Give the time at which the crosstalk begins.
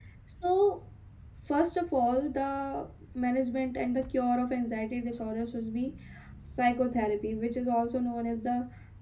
none

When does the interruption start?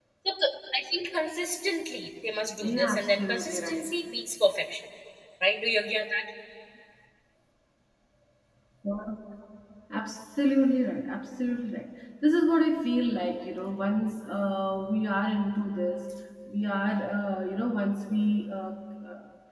2.6 s

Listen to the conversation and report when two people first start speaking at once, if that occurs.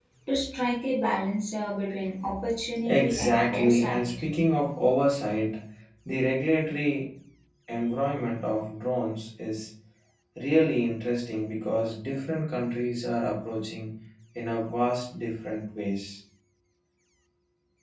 2.8 s

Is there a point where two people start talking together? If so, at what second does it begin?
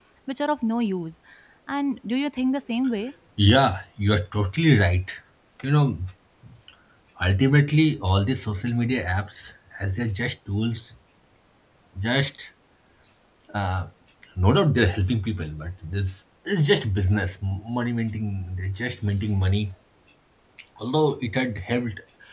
none

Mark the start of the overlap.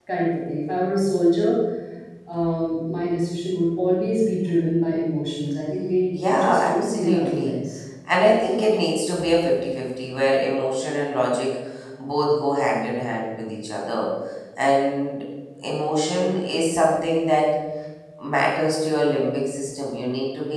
6.1 s

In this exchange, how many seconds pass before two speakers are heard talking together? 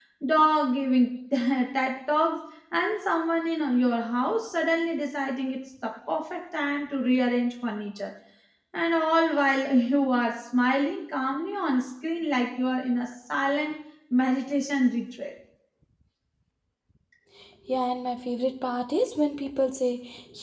none

